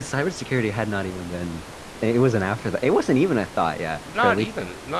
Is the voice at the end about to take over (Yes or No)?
Yes